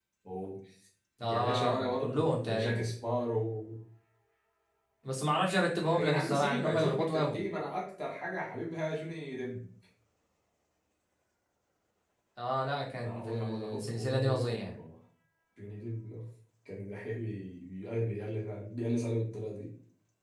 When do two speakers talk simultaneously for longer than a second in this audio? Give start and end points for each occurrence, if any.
1.2-2.9, 5.8-7.4, 13.0-14.8

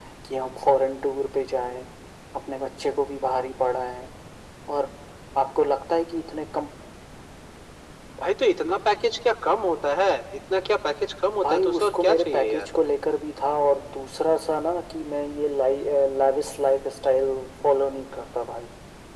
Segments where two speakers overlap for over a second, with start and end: 11.4-12.7

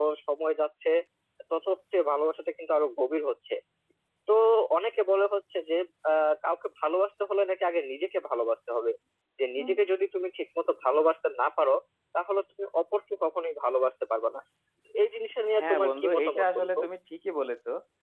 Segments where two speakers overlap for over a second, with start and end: 15.6-16.8

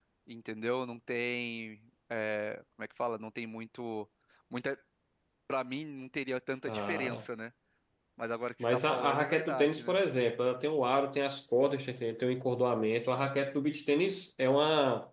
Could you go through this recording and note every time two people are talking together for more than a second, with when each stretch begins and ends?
8.6-10.0

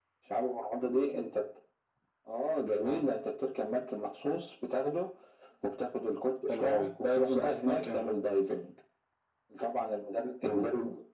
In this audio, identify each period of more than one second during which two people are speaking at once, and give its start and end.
6.6-8.0

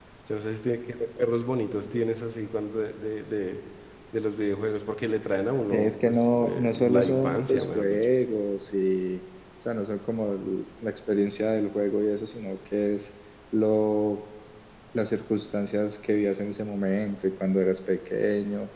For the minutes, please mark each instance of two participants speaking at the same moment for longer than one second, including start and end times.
5.7-8.1

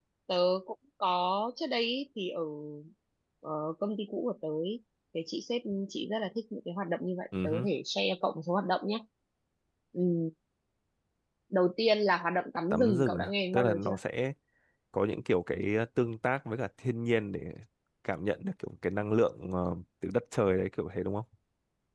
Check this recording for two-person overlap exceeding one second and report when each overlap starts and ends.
12.7-14.0

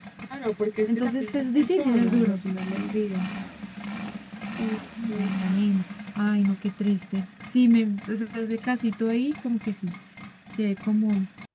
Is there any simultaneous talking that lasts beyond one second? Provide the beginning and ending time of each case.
0.9-2.4

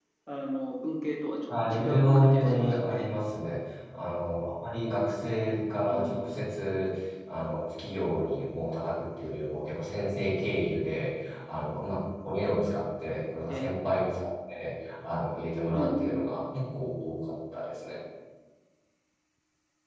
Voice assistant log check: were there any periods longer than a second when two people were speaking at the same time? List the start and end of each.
1.5-3.1

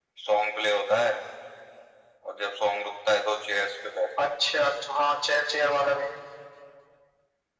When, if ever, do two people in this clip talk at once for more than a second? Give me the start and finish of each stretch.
none

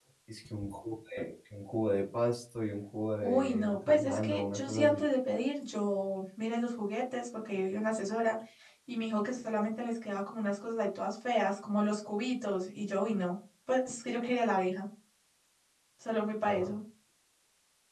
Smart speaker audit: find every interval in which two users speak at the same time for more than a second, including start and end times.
3.2-5.0

